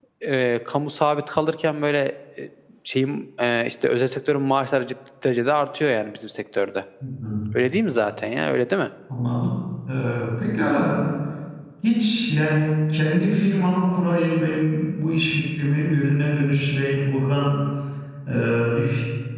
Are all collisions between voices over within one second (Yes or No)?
Yes